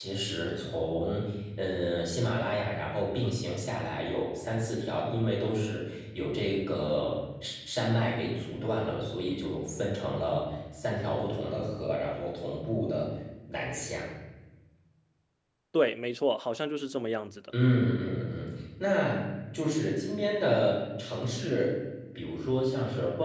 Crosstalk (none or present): none